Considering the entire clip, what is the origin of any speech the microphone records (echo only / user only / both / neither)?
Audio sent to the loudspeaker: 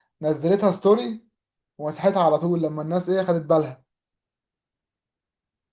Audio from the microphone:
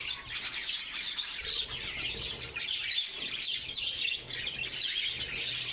neither